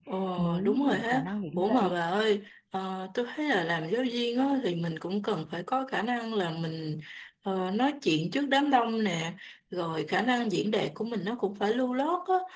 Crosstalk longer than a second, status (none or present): present